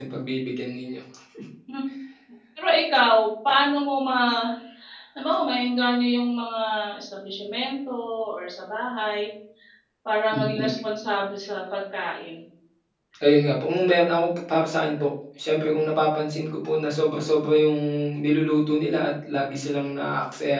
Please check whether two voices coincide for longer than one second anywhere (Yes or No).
No